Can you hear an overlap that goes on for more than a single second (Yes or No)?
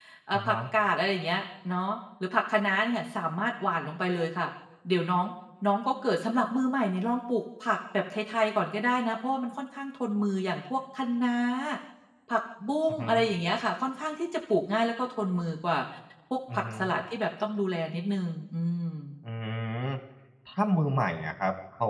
No